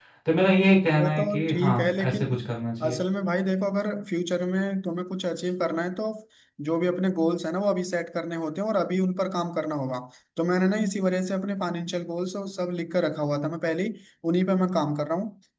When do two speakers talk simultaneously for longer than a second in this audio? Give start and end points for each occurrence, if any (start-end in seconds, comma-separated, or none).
0.9-2.3